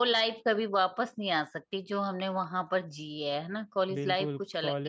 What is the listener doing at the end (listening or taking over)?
taking over